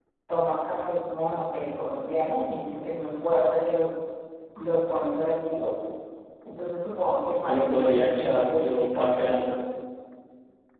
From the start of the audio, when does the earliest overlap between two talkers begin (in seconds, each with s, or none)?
7.4 s